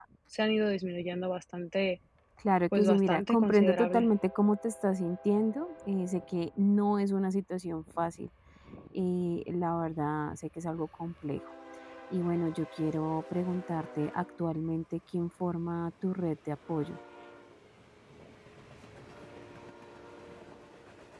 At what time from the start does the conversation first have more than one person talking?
2.8 s

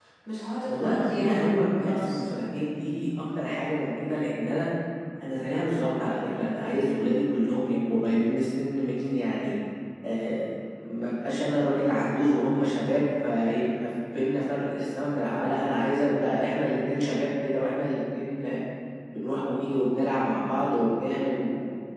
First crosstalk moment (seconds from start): 0.7 s

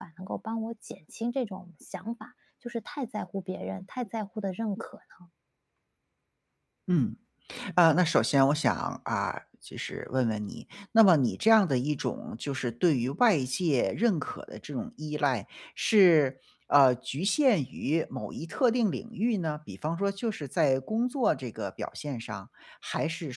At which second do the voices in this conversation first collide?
none

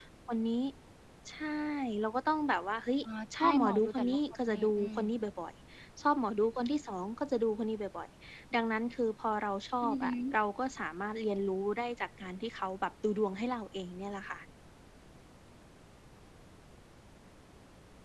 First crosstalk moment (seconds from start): 3.4 s

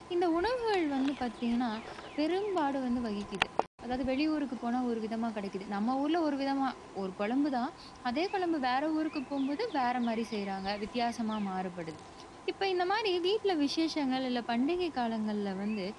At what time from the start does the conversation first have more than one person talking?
none

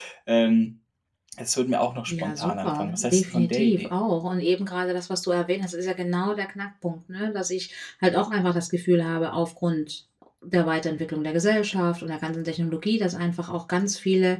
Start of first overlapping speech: 2.1 s

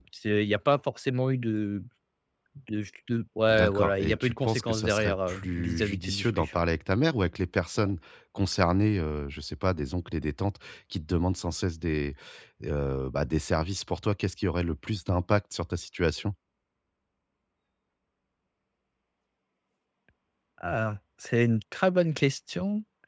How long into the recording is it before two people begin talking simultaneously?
3.5 s

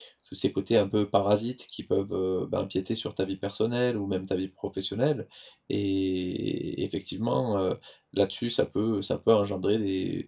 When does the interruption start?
none

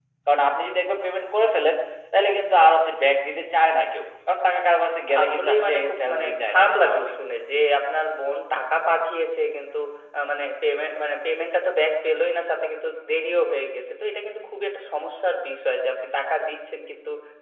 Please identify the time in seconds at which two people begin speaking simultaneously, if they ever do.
5.1 s

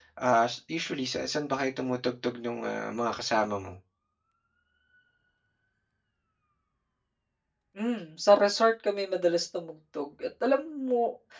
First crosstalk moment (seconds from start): none

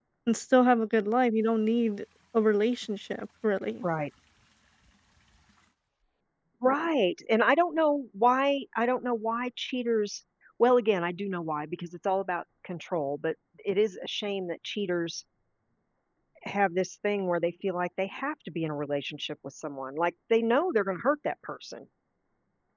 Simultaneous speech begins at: none

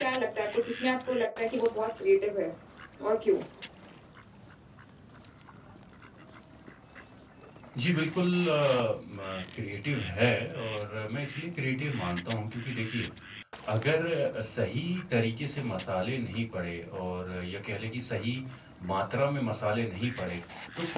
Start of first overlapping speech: none

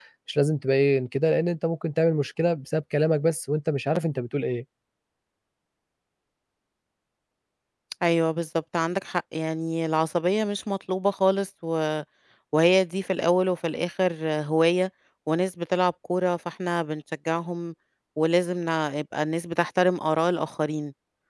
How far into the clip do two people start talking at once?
none

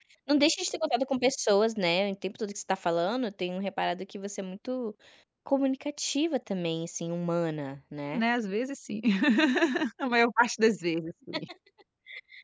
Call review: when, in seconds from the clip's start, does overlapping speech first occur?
none

